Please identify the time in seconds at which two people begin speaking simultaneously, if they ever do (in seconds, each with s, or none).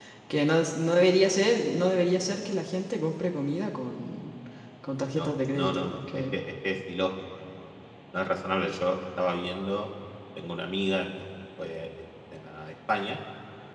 5.0 s